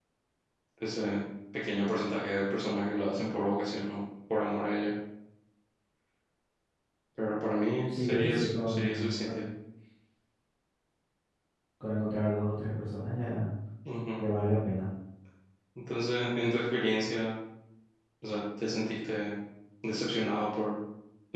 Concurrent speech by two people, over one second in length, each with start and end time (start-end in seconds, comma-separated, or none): 7.9-9.4